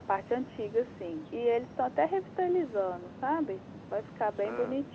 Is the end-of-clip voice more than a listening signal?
No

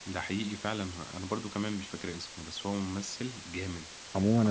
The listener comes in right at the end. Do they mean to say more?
Yes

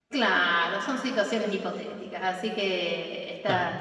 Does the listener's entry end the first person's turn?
No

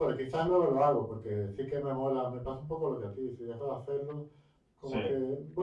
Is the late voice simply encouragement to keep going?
Yes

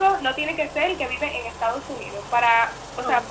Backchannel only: Yes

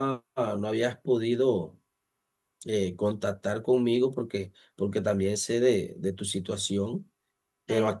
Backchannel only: Yes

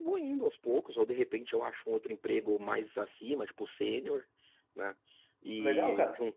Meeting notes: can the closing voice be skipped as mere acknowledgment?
Yes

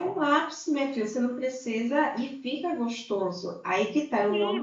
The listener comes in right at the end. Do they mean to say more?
Yes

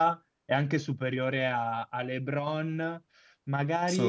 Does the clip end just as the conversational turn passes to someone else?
No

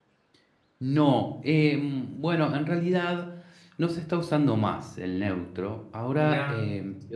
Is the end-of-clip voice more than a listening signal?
No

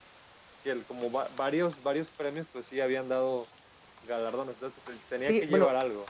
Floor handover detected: Yes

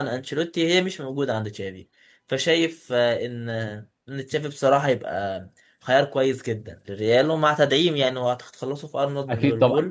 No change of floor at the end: No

